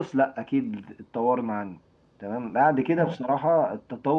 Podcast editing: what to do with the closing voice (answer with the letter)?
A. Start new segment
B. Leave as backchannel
B